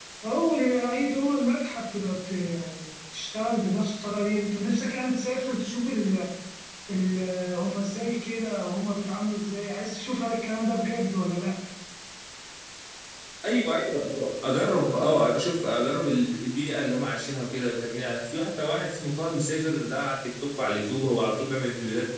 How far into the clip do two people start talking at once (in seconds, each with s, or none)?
none